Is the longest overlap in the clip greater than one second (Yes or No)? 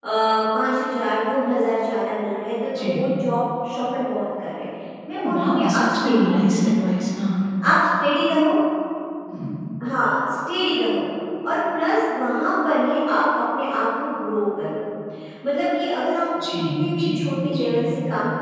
Yes